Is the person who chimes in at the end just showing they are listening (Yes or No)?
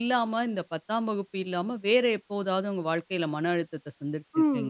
No